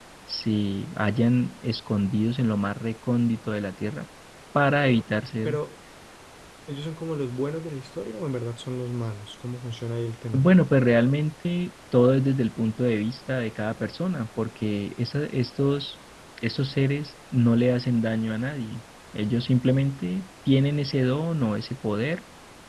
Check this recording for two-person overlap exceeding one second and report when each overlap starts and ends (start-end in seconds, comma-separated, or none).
none